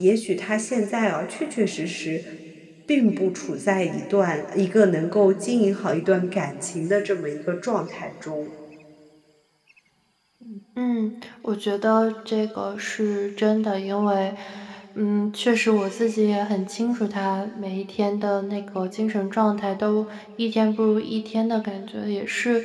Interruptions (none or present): none